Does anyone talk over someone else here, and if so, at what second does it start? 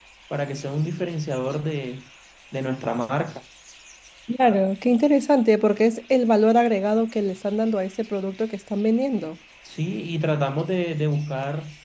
none

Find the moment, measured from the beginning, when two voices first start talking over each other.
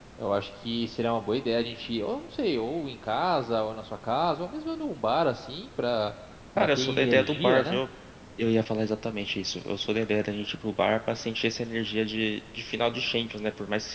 6.6 s

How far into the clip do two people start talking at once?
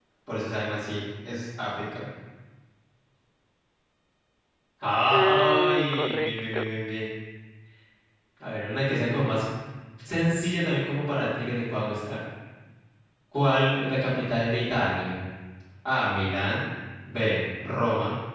5.1 s

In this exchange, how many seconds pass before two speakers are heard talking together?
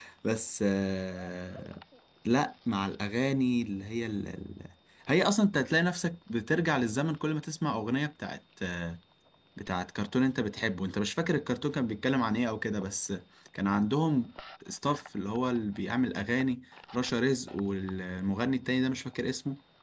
none

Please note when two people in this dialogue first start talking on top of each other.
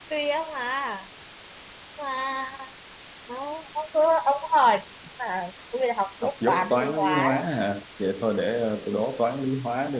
6.2 s

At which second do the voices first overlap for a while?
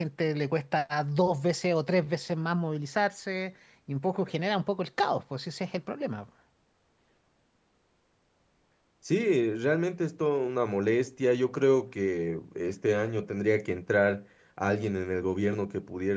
none

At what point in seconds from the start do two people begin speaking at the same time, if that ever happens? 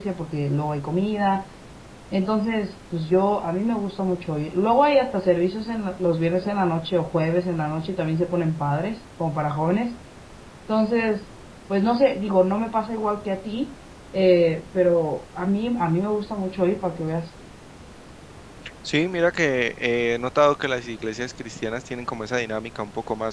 none

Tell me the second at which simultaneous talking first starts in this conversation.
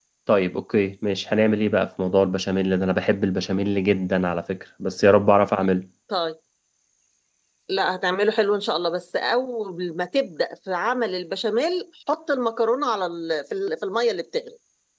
none

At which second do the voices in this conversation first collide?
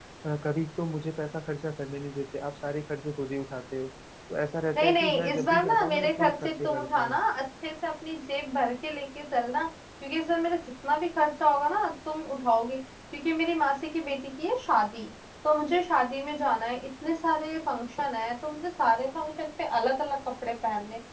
4.8 s

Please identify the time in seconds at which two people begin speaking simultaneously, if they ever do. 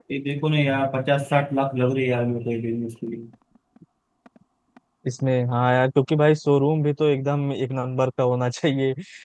none

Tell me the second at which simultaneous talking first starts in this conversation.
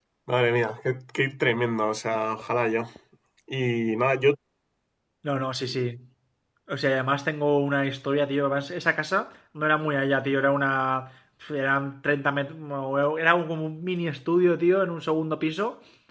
none

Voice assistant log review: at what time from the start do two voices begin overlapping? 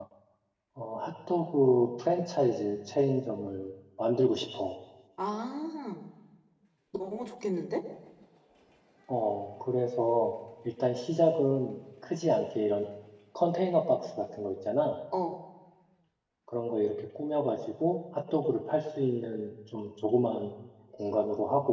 none

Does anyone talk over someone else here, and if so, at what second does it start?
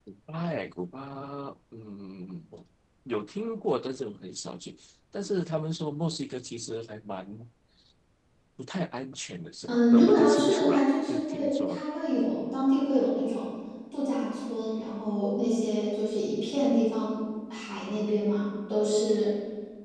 9.7 s

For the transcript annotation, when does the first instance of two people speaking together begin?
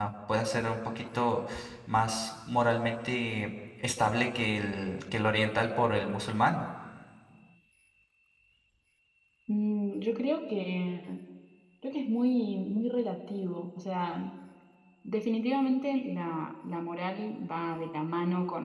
none

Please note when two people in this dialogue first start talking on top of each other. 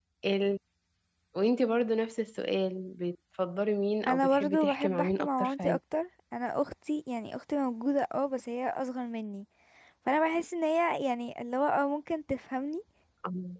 4.0 s

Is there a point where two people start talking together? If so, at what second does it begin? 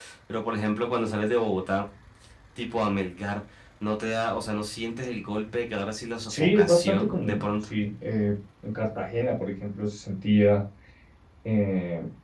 6.3 s

